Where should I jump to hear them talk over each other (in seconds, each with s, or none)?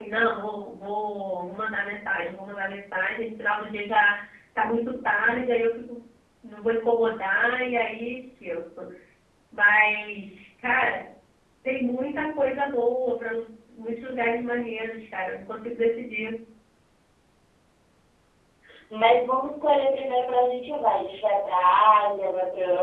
none